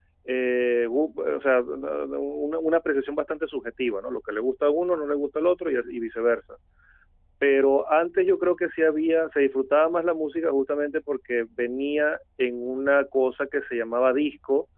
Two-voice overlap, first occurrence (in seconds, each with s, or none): none